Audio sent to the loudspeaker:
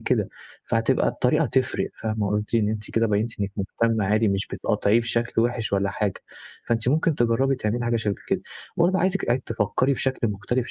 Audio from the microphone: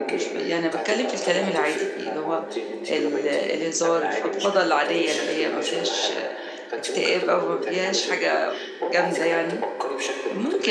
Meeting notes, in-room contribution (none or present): present